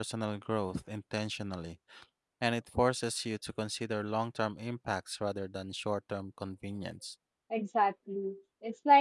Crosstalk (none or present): none